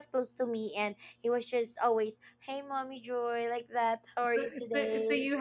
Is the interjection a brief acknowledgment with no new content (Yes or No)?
No